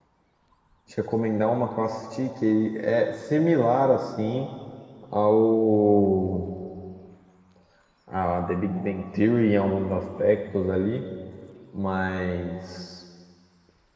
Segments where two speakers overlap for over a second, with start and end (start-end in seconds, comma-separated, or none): none